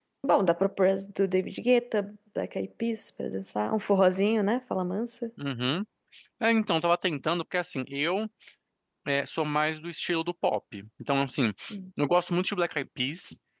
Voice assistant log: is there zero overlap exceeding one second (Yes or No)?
Yes